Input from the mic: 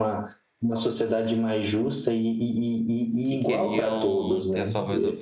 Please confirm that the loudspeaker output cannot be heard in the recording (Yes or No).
No